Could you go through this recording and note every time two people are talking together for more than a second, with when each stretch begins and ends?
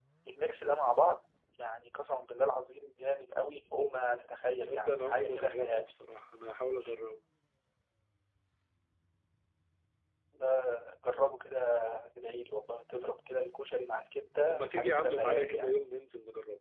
4.6-5.8, 14.5-15.7

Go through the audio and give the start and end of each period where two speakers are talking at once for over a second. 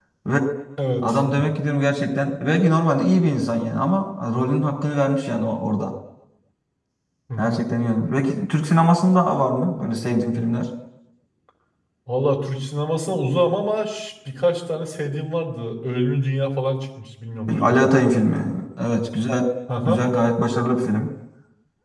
none

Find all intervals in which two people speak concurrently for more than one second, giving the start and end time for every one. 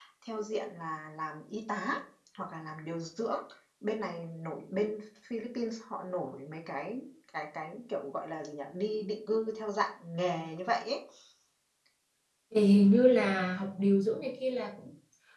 none

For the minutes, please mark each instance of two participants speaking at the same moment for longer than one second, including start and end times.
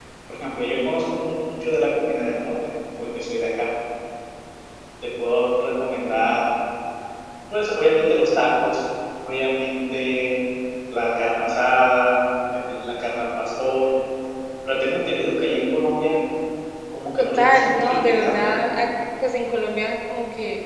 17.2-18.6

